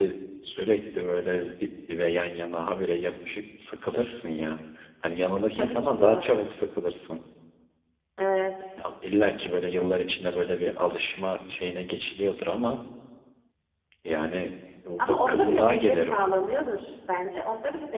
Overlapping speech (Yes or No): Yes